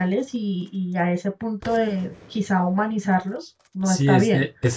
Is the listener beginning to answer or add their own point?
Yes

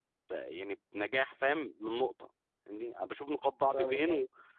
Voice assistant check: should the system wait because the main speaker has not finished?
Yes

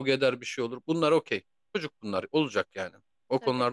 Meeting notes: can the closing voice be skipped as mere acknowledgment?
Yes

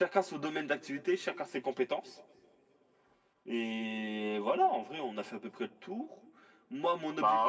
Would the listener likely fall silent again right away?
Yes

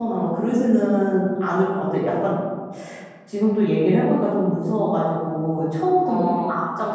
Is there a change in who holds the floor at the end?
No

